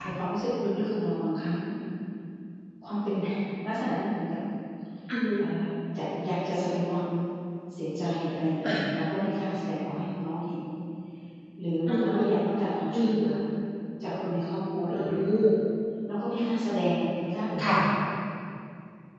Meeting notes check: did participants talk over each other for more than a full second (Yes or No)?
No